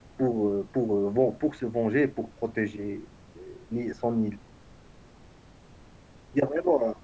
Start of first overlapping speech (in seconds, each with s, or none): none